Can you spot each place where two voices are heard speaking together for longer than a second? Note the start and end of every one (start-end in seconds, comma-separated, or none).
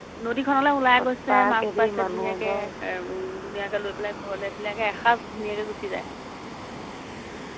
1.0-2.5